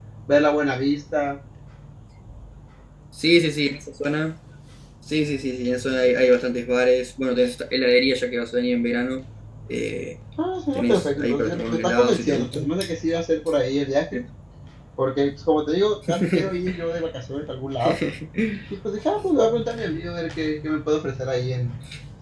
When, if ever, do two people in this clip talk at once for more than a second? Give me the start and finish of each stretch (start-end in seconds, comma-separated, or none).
10.8-12.6